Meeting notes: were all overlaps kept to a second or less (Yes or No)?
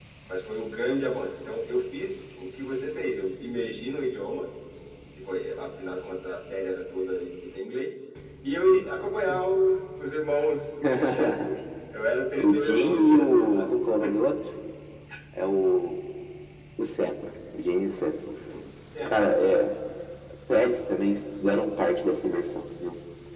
No